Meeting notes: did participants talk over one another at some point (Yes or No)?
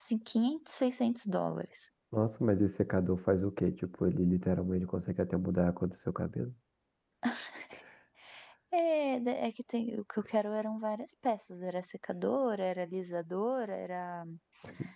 No